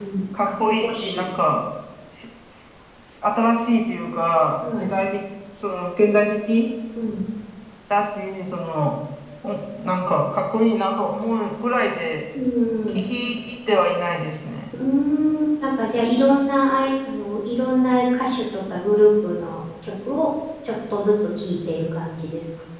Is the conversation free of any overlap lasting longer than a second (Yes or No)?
Yes